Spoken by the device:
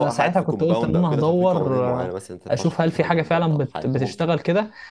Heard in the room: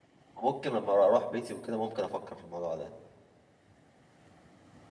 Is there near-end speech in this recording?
Yes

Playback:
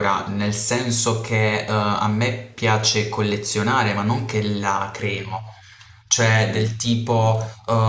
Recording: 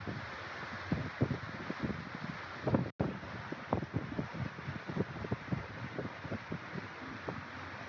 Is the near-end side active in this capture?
No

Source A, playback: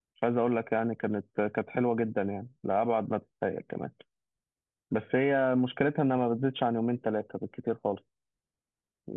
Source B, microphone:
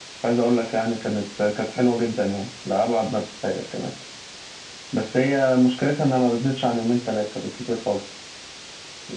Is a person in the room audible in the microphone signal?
No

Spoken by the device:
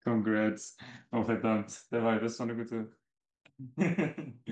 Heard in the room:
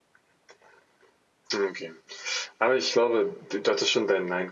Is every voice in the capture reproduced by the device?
No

